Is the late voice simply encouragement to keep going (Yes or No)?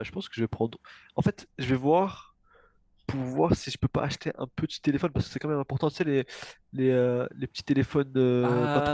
No